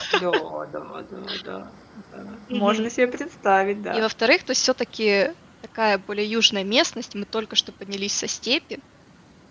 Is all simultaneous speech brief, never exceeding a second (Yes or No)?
Yes